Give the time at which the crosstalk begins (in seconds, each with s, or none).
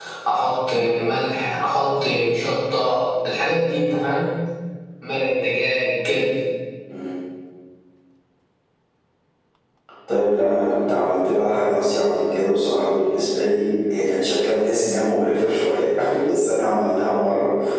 none